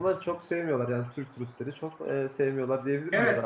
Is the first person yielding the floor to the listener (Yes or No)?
Yes